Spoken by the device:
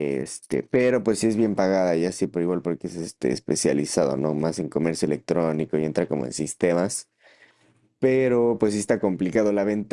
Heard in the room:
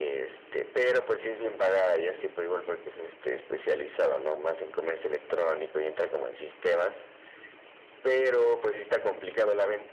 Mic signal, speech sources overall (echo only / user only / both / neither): echo only